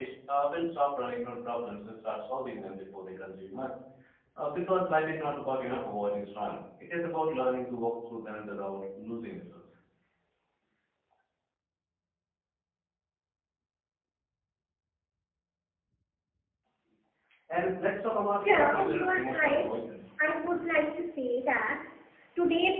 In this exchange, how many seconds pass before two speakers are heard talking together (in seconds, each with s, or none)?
18.4 s